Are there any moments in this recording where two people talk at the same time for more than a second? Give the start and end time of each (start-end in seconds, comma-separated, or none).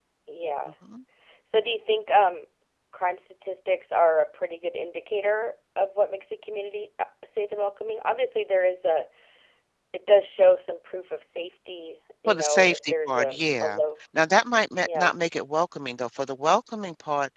12.3-13.8